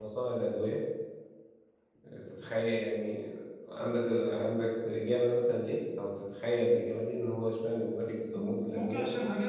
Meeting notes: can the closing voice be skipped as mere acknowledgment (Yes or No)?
No